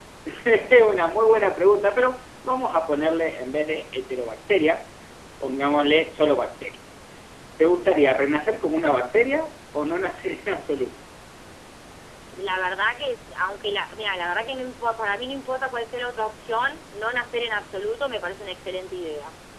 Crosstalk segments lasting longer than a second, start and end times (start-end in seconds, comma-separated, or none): none